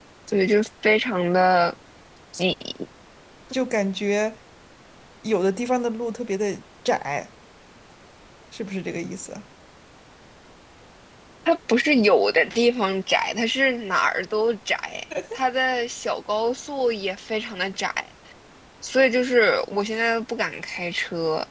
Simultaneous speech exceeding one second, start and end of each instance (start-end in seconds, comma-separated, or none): none